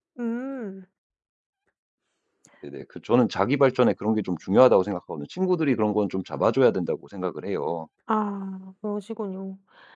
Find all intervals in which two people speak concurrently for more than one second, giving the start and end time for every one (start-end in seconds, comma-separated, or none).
none